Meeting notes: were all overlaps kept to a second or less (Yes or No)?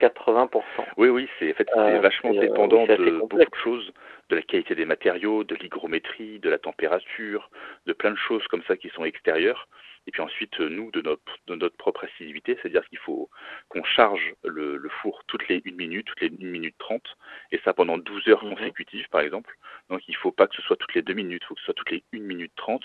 No